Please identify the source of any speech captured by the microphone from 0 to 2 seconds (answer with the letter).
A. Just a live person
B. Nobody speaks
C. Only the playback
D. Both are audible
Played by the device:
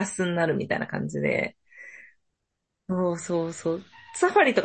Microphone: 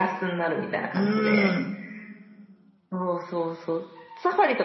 D